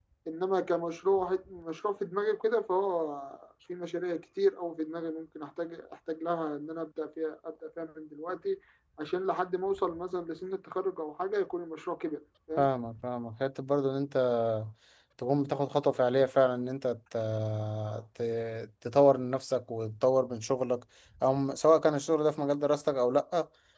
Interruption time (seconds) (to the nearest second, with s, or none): none